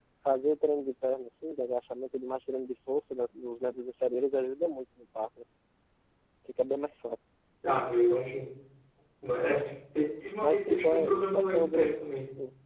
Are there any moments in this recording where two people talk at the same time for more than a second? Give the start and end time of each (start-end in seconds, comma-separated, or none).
10.4-11.9